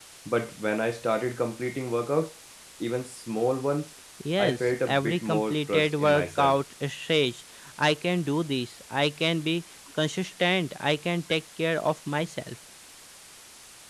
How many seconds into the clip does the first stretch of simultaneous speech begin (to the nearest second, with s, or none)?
4 s